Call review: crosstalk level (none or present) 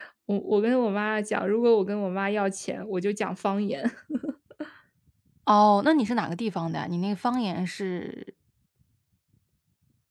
none